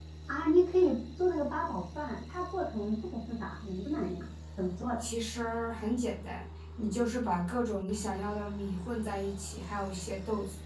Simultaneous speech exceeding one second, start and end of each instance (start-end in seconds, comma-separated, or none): none